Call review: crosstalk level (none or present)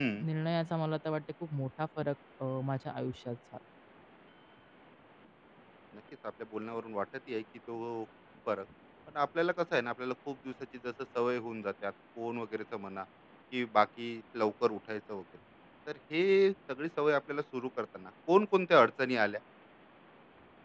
none